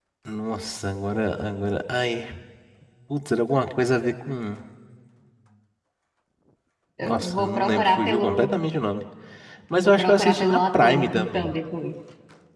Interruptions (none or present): present